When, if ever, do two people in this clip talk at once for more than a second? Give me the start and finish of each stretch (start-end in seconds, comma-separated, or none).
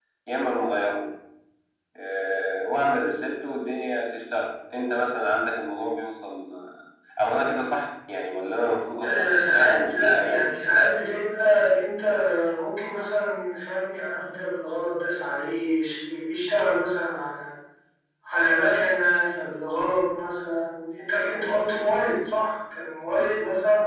9.0-10.7